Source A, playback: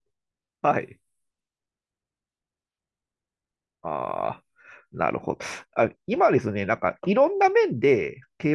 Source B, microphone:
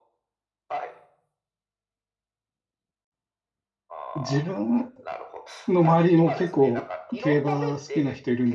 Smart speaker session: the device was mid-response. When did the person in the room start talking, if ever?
4.2 s

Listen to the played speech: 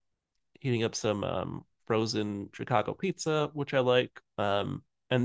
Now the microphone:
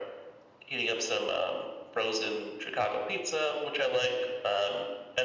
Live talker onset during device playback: none

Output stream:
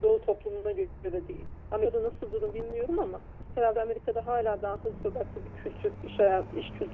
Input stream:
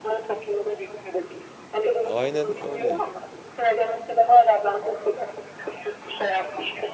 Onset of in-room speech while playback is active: 2.0 s

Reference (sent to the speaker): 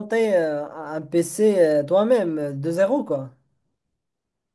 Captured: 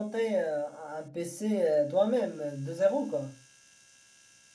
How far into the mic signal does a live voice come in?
none

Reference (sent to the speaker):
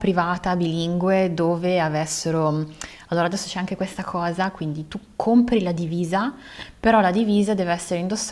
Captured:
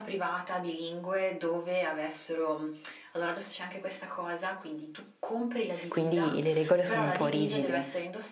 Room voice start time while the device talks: 5.9 s

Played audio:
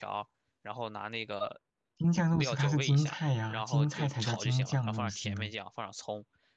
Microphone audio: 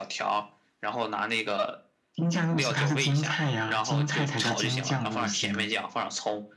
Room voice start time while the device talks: none

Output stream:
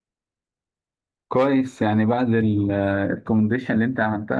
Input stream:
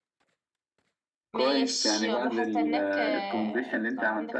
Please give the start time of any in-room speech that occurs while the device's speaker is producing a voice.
1.3 s

